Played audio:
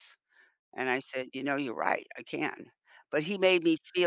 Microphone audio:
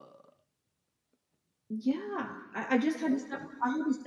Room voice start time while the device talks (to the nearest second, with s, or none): 2 s